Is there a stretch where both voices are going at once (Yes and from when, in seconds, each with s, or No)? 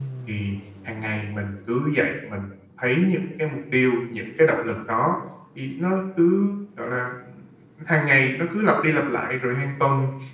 No